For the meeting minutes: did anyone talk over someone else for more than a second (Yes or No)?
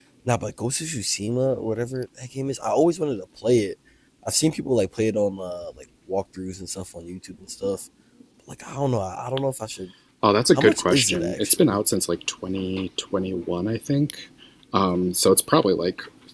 Yes